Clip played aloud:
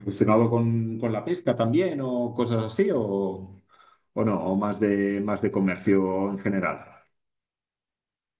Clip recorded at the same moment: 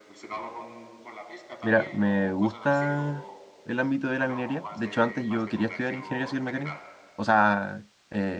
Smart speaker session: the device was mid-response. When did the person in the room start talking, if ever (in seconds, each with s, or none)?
1.6 s